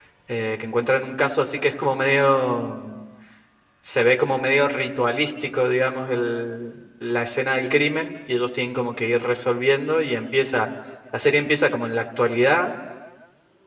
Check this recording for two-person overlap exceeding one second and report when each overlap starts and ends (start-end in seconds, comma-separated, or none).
none